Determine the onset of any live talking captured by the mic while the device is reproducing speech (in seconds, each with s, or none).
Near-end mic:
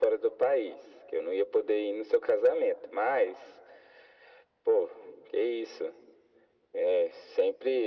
none